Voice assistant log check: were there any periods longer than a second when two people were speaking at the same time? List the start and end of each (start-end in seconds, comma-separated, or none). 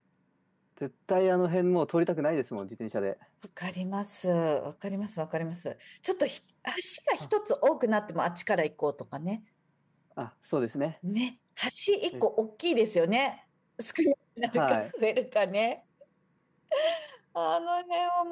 none